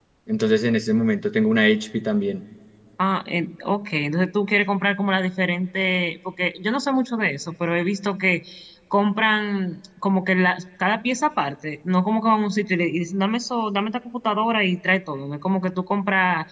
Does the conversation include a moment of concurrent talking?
No

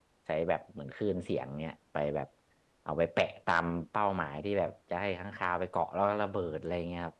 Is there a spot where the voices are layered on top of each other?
No

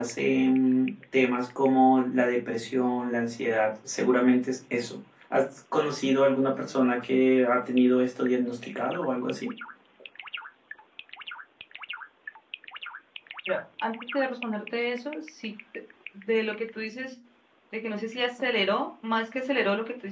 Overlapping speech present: No

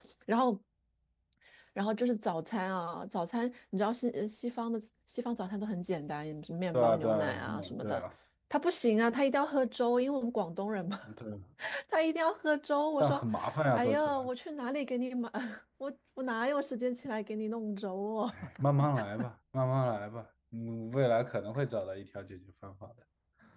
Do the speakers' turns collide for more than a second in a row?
Yes, from 6.7 s

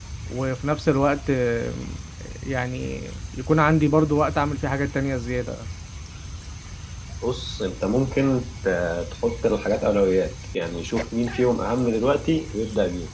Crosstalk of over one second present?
No

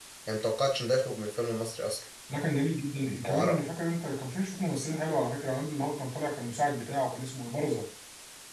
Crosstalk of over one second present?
No

